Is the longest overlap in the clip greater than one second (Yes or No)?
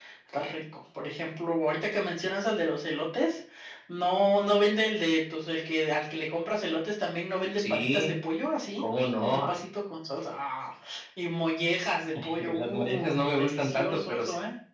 Yes